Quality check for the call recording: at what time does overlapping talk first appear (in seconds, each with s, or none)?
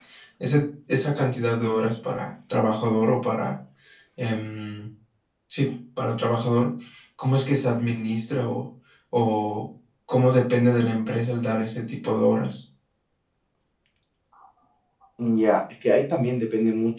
none